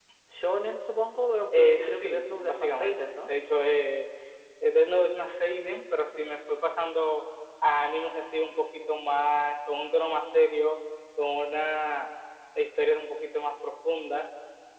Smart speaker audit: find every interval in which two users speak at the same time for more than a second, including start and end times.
1.5-3.3

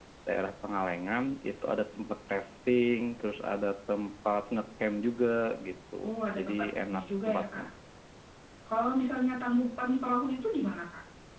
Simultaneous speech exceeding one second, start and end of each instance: 6.4-7.6

